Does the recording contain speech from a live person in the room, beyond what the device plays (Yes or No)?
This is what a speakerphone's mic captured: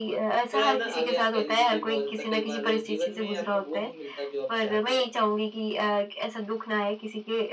Yes